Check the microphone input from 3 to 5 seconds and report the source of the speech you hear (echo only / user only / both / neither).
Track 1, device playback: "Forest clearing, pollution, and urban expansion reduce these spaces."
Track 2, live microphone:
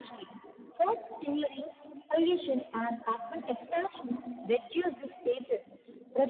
echo only